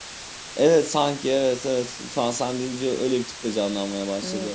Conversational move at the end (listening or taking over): taking over